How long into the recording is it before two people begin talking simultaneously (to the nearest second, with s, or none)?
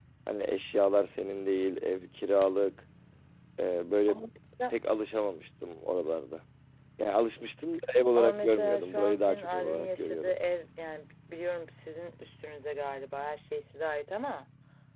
8 s